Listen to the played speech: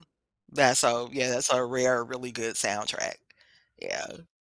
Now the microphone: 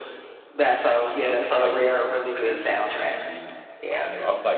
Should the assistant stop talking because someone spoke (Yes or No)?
Yes